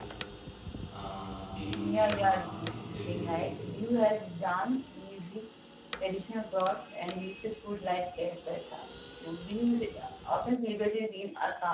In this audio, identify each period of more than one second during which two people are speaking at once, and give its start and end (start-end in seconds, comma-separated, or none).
1.7-3.6